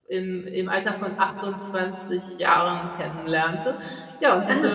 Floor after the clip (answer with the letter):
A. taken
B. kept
B